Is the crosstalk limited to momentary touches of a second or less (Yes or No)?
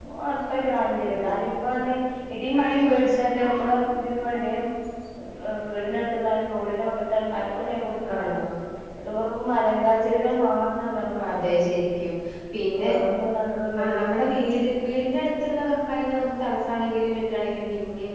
Yes